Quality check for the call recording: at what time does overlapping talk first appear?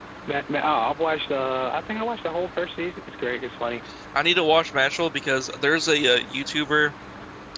none

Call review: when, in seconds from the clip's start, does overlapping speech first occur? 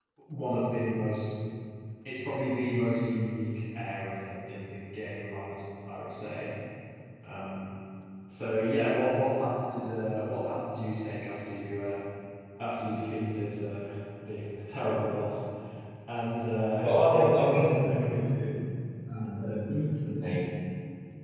16.8 s

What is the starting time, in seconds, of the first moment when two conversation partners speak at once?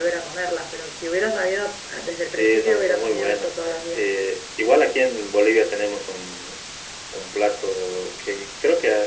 2.3 s

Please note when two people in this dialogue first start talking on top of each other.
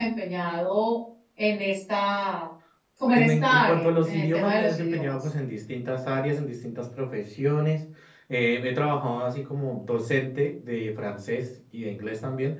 3.1 s

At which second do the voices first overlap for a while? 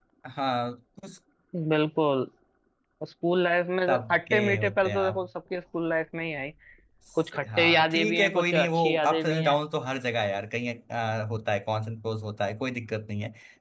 3.9 s

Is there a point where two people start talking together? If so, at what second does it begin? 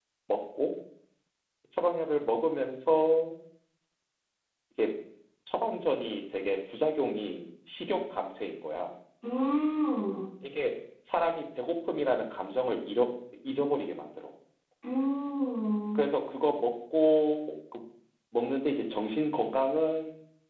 none

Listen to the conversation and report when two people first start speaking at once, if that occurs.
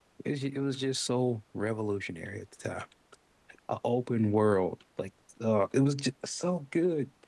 none

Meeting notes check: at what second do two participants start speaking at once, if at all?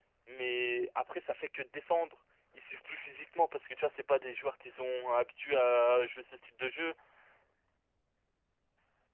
none

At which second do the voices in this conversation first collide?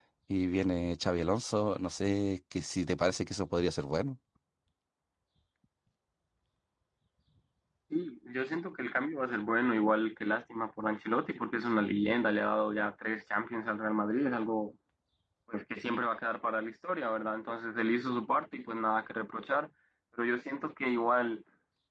none

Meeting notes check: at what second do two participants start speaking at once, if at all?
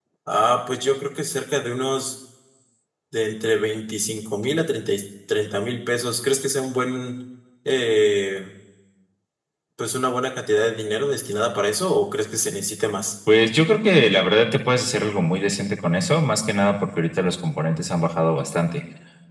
none

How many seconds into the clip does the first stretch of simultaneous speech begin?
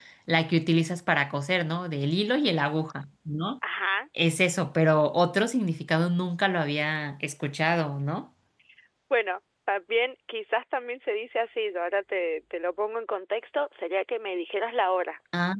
none

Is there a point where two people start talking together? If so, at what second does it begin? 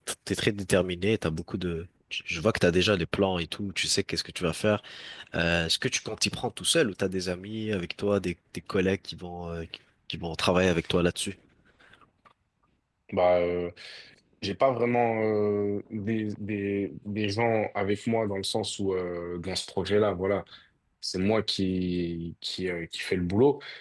none

